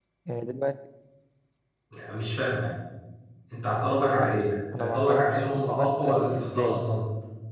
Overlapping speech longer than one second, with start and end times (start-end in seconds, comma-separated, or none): 4.8-6.8